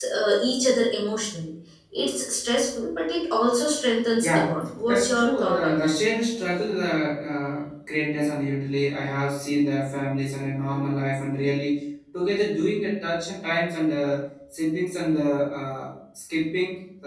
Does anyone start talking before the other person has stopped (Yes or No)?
Yes